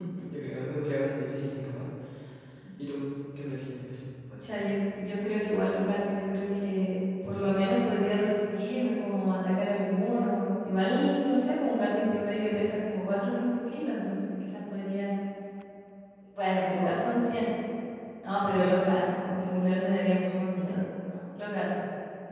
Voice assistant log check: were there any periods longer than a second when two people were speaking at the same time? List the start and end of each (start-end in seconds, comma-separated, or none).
none